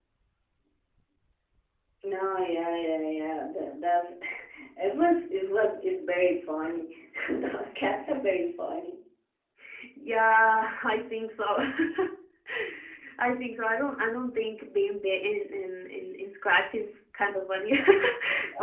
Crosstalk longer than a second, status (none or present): none